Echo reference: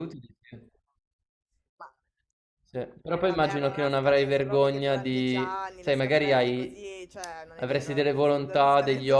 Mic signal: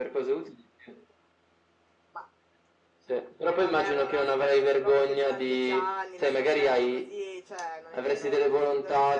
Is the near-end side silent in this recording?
Yes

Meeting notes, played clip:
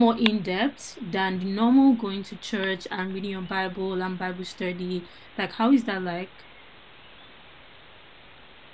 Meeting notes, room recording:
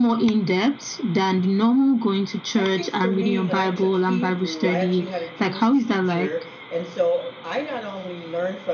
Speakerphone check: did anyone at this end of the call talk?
Yes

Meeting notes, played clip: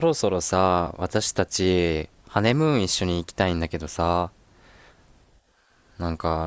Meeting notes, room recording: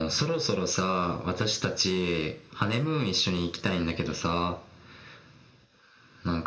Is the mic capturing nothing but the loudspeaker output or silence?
Yes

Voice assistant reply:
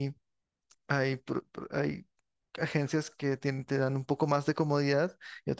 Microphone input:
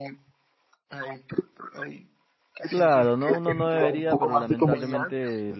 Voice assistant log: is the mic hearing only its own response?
No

